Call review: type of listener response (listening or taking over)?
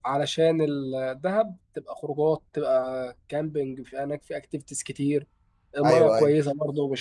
listening